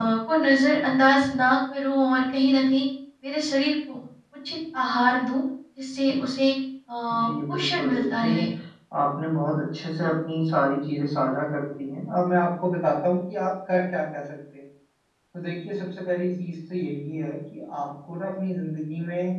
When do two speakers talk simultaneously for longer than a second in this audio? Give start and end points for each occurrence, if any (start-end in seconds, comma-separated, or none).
7.1-8.4